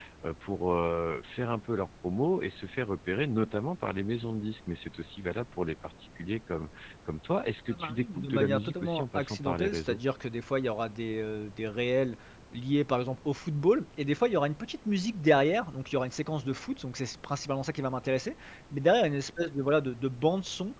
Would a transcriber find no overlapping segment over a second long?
No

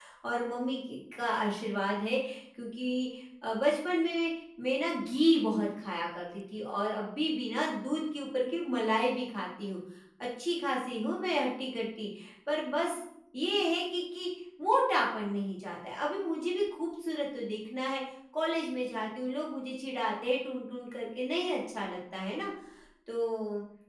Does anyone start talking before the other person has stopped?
No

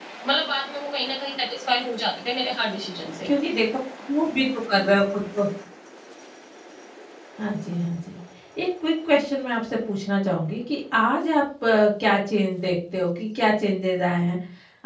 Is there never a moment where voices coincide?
Yes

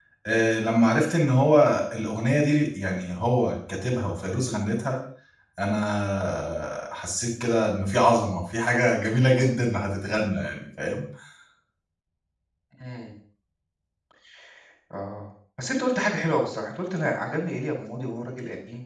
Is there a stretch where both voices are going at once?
No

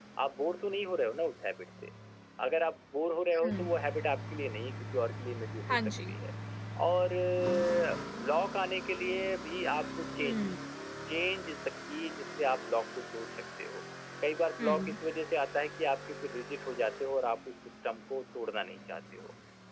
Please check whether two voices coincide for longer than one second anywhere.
No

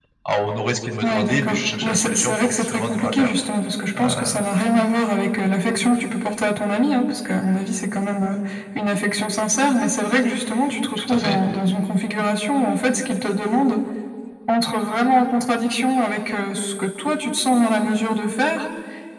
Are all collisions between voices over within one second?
No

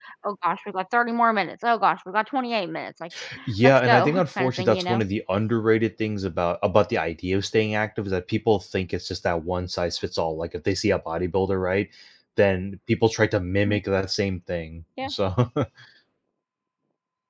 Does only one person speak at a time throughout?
No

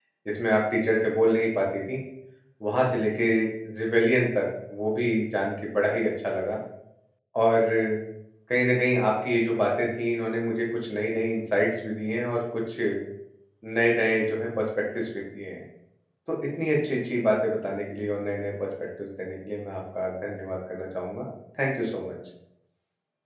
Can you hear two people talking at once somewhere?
No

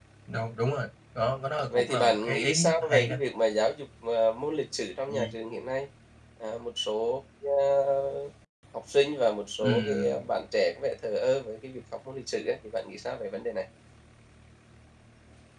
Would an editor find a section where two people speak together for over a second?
Yes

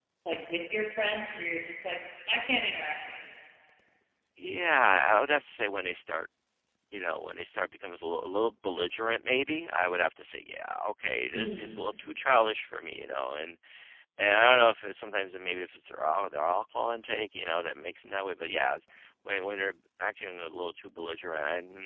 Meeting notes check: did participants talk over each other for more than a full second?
No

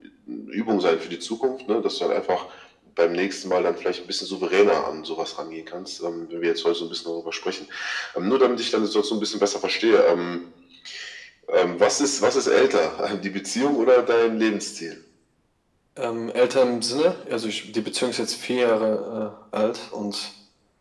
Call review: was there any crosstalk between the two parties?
No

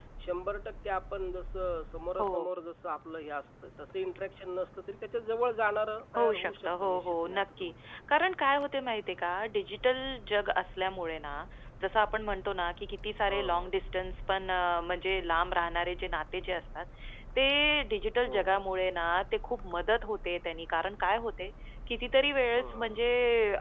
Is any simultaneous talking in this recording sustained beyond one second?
Yes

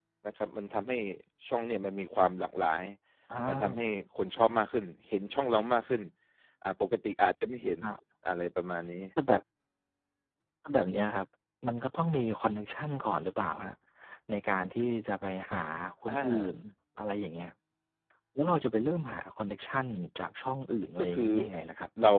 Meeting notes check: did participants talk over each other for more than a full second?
No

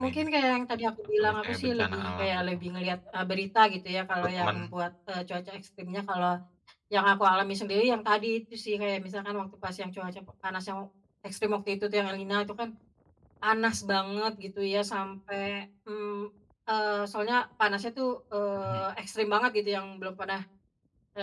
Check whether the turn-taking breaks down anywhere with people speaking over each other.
Yes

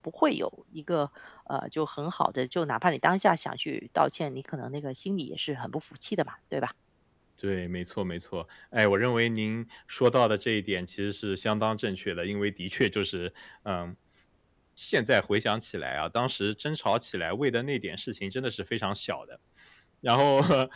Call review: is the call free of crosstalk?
Yes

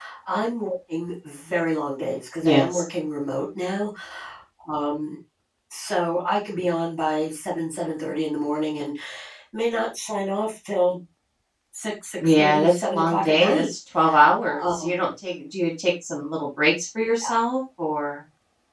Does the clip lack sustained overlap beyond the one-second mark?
No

